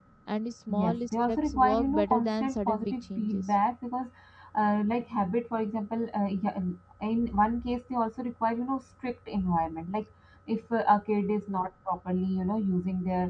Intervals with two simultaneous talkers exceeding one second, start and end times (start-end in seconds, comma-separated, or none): 0.7-3.5